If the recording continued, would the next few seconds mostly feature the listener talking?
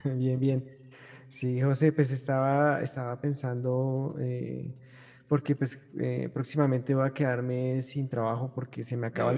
No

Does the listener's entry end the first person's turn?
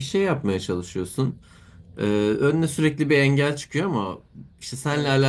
No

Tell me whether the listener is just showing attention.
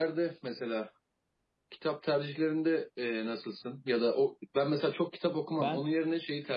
Yes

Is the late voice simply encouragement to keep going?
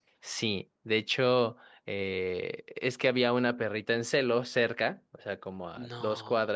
Yes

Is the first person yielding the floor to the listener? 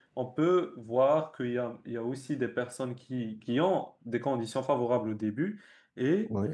No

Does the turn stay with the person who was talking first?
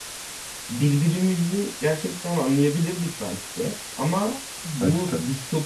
Yes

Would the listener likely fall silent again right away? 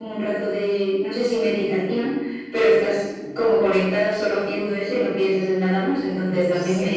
Yes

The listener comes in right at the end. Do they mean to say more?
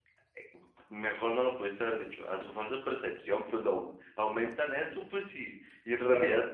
No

